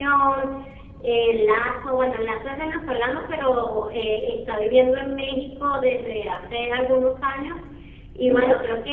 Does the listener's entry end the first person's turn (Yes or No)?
No